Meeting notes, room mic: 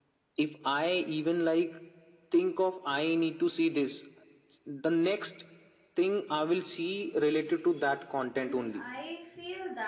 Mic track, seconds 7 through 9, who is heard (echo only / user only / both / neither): both